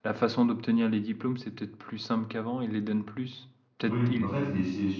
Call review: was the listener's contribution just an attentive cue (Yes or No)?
No